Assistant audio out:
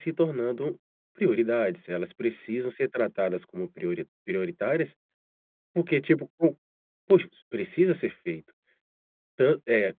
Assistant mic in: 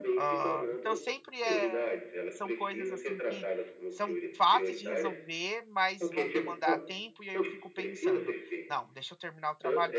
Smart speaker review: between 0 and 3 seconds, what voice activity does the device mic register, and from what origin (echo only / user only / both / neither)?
both